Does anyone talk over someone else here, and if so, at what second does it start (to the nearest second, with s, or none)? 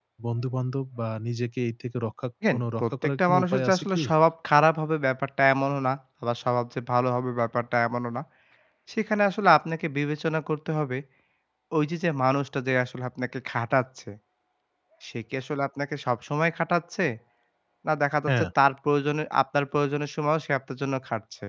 2 s